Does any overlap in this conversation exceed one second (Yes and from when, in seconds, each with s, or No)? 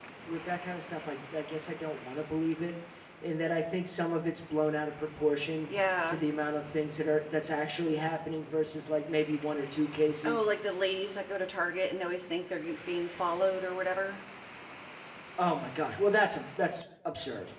No